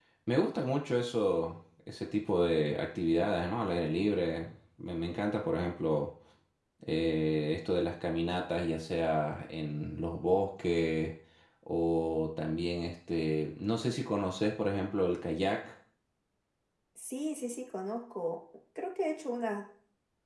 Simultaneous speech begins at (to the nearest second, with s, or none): none